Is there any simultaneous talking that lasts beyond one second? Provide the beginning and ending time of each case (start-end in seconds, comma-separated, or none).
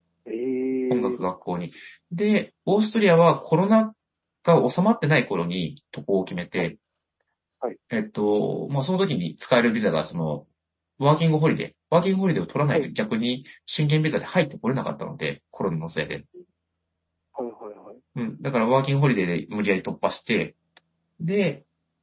none